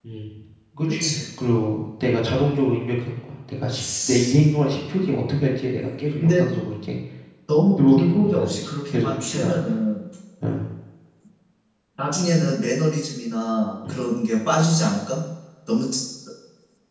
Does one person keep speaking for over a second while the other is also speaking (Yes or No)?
Yes